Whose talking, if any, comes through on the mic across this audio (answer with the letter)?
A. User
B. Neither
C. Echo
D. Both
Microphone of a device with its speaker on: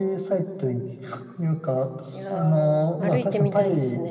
D